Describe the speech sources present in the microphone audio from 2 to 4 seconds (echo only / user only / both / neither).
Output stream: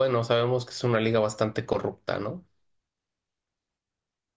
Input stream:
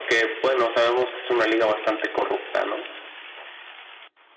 echo only